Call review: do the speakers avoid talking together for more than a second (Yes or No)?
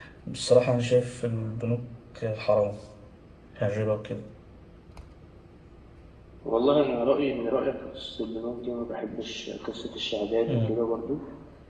Yes